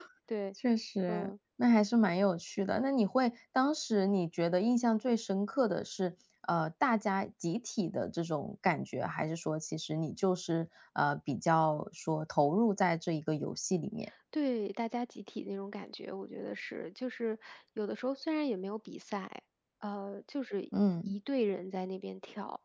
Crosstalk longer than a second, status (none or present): none